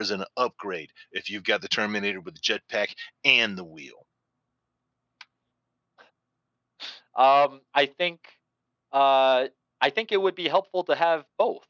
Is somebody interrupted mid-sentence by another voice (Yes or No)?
No